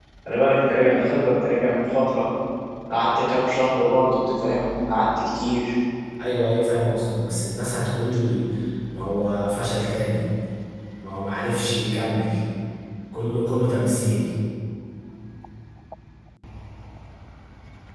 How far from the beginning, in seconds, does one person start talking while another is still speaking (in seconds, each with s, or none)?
none